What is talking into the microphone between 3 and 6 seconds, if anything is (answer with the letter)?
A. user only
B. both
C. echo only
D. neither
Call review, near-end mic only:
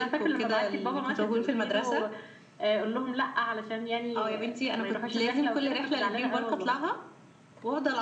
C